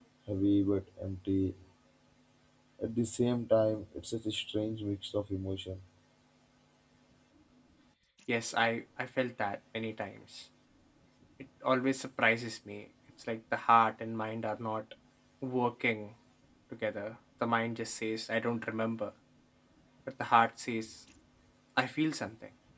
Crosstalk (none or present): none